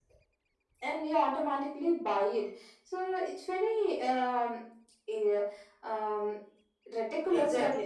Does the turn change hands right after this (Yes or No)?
Yes